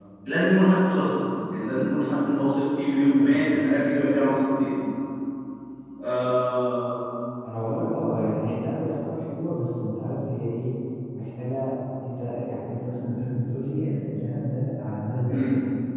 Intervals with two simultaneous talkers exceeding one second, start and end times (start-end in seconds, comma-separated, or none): none